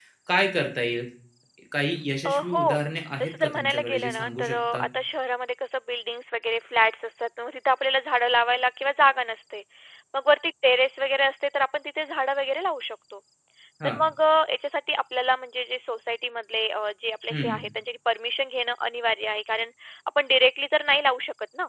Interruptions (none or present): present